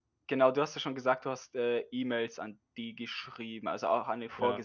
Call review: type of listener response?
listening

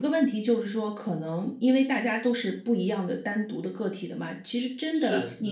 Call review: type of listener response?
listening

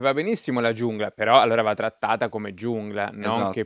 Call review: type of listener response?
taking over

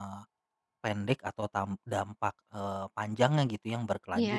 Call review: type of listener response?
listening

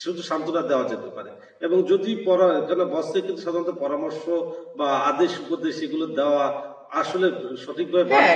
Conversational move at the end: taking over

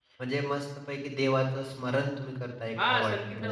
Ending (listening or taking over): taking over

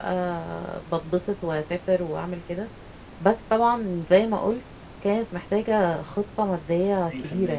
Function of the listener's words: taking over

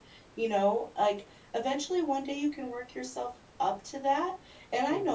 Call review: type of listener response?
listening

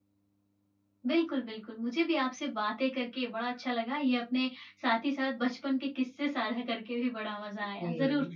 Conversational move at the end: listening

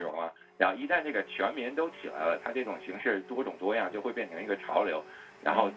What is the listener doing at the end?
listening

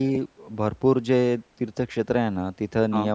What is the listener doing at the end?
listening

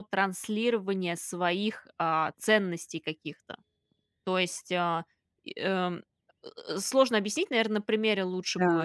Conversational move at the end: taking over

